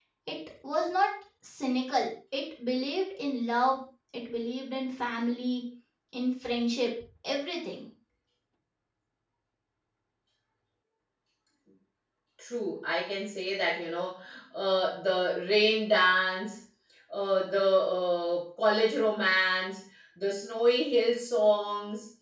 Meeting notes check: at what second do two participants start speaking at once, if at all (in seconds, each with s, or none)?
none